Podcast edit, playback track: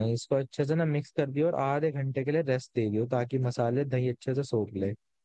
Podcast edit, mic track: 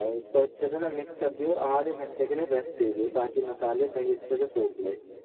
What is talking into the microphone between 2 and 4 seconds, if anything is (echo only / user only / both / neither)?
echo only